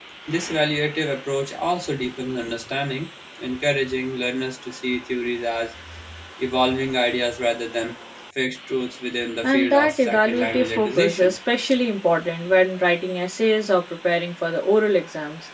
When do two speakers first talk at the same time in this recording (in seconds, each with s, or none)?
9.4 s